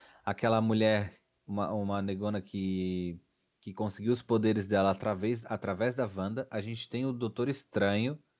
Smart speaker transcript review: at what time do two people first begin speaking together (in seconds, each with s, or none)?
none